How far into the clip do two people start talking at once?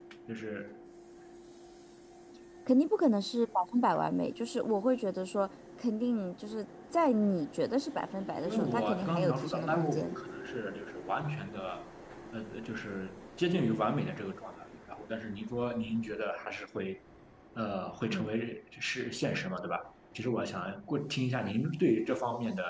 8 s

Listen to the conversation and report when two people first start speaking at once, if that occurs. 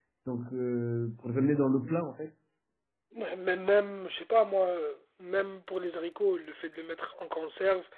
none

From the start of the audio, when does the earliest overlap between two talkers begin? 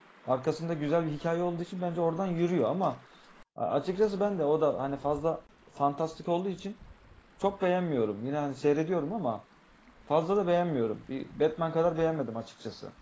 none

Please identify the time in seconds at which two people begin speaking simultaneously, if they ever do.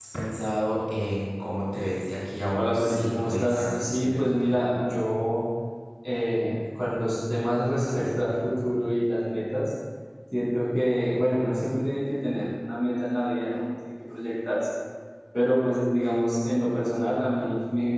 3 s

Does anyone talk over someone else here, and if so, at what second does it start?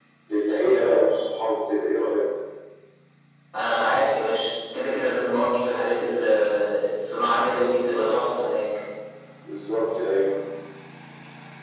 none

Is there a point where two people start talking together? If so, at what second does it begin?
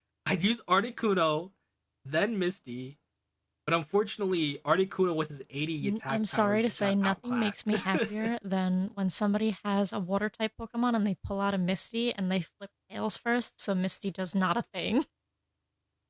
6 s

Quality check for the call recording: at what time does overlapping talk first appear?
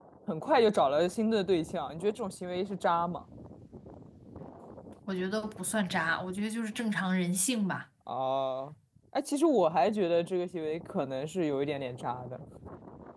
none

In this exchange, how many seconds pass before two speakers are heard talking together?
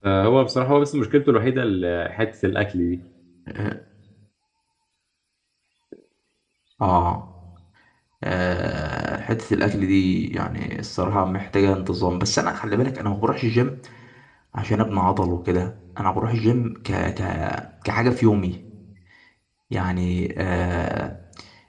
none

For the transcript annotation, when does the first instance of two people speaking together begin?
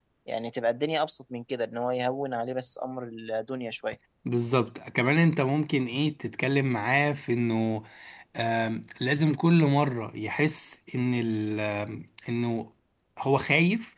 none

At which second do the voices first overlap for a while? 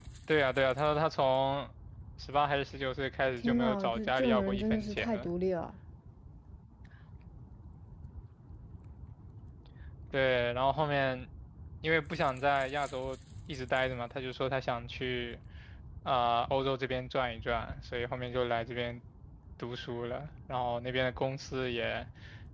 3 s

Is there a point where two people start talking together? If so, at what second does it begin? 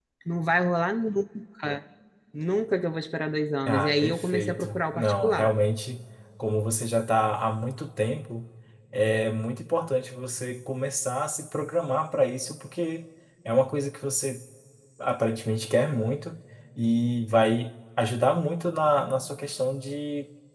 4 s

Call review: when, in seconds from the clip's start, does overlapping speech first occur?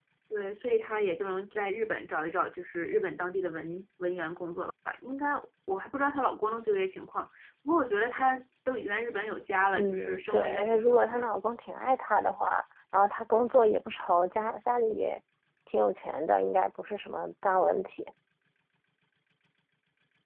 10 s

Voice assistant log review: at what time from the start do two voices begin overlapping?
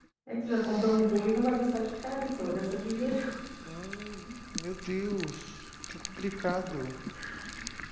none

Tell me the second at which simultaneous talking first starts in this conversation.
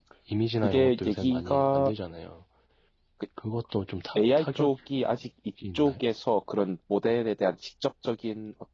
1 s

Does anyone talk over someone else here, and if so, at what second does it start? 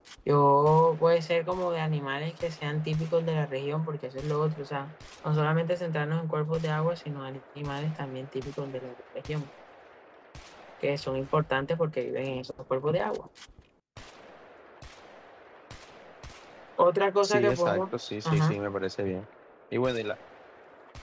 17 s

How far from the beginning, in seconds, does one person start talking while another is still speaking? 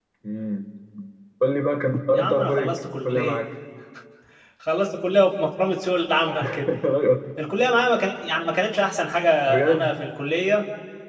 2 s

